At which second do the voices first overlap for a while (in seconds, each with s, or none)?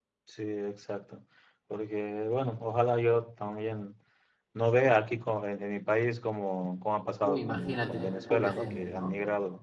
7.2 s